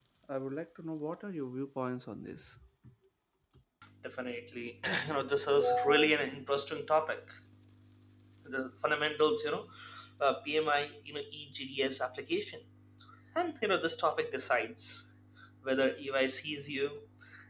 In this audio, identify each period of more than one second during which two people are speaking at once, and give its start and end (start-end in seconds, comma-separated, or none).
none